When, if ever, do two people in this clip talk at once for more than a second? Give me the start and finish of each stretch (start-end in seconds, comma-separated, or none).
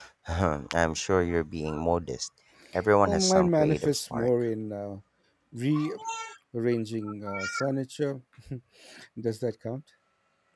3.0-4.3